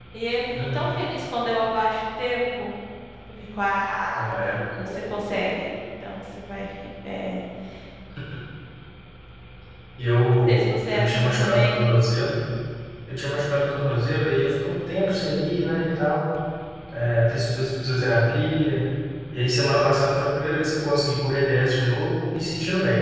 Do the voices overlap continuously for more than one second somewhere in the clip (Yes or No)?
Yes